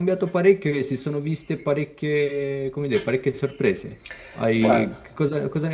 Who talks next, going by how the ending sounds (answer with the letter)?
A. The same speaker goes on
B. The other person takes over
A